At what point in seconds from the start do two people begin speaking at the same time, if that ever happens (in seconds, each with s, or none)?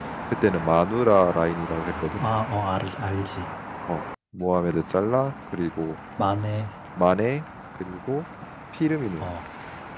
none